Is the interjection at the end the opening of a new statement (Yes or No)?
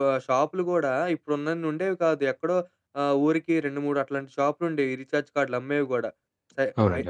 No